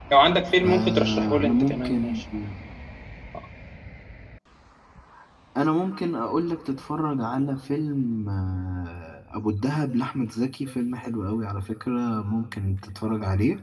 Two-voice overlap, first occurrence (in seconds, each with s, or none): 0.6 s